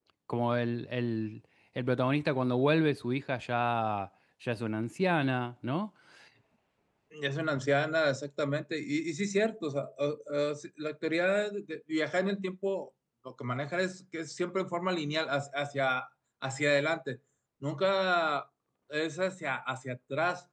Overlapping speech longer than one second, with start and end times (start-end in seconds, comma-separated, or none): none